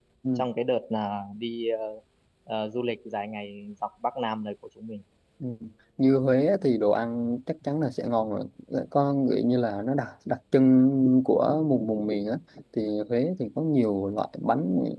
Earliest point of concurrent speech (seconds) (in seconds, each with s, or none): none